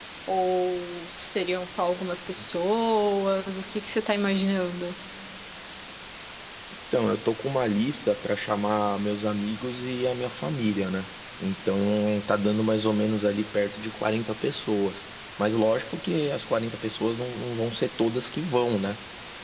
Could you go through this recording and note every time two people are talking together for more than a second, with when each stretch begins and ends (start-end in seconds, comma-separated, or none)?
none